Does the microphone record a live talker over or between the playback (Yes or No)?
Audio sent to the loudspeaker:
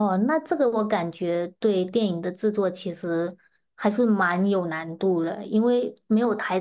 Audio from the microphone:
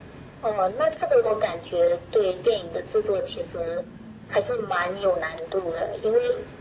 No